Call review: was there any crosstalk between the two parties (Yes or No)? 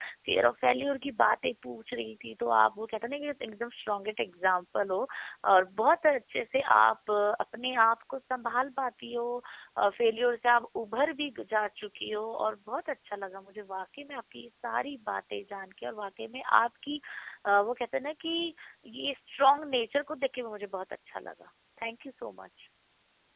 No